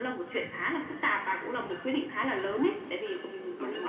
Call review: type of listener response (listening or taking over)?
listening